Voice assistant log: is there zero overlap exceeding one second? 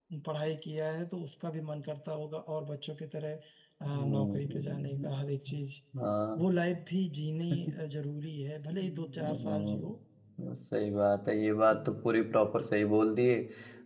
No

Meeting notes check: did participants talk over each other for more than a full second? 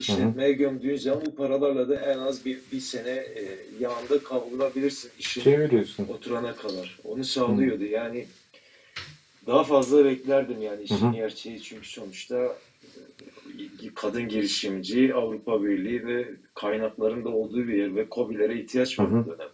No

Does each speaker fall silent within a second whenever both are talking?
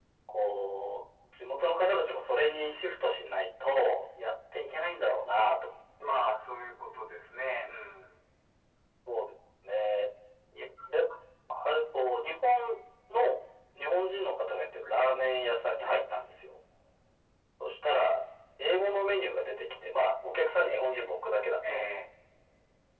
Yes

